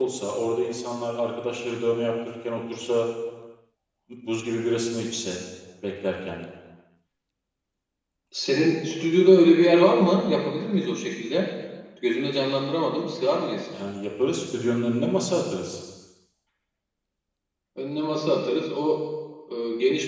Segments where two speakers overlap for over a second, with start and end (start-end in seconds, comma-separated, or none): none